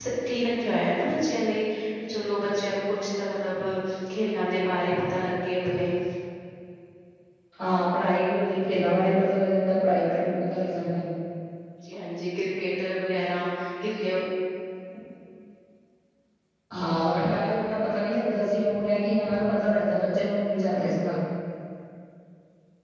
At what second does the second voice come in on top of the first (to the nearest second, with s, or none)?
none